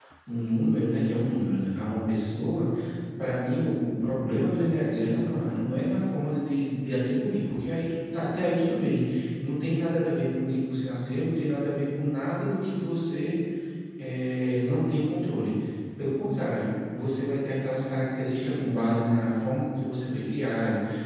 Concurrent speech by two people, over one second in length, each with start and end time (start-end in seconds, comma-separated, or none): none